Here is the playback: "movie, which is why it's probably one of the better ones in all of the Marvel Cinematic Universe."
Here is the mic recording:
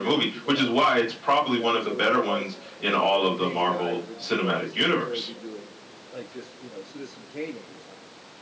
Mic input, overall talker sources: both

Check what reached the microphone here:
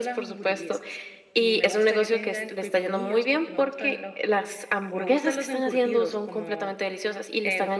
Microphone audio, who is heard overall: echo only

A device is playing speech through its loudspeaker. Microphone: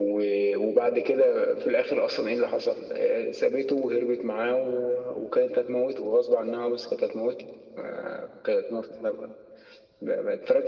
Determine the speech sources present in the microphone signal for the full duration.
echo only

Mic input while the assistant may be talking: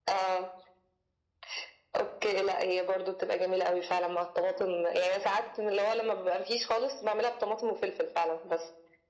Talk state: echo only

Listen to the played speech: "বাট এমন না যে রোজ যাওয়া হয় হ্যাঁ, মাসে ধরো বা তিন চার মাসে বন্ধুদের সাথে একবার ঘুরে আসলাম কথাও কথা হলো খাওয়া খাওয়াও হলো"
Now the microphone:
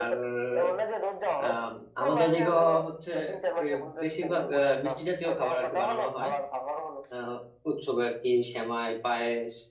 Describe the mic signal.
both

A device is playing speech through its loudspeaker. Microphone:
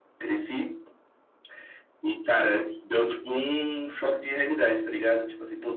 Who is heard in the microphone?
echo only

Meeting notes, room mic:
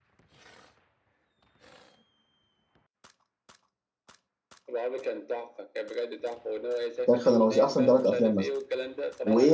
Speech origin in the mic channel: both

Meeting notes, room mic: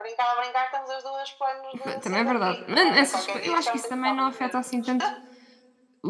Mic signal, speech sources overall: both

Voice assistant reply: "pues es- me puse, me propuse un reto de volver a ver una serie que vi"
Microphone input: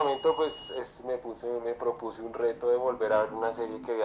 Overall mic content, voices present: echo only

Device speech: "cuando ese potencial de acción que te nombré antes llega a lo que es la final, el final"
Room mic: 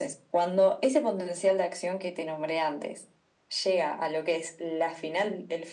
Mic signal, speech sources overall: echo only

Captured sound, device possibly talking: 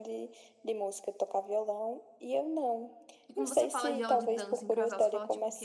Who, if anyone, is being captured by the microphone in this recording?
both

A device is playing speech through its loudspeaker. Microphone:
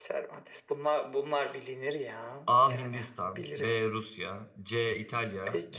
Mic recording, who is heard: both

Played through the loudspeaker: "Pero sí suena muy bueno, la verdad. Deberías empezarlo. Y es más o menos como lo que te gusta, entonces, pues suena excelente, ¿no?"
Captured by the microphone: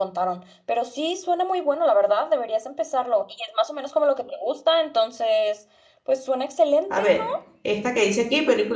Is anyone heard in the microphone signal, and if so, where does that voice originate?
both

